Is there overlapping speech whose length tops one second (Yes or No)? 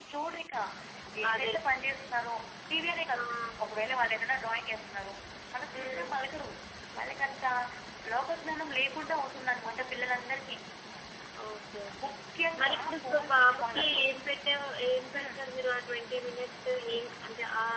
Yes